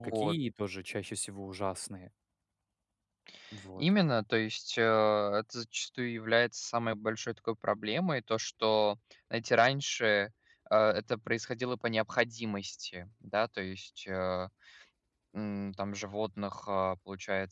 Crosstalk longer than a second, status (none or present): none